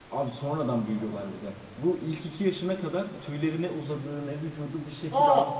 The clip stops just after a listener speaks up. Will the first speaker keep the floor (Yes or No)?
Yes